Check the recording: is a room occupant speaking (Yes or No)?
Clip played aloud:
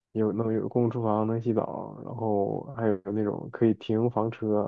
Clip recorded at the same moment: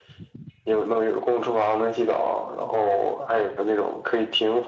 No